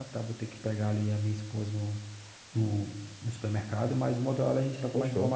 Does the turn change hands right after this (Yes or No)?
No